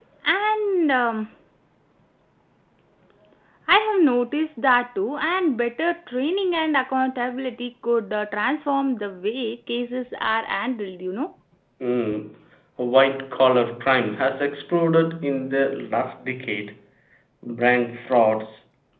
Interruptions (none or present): none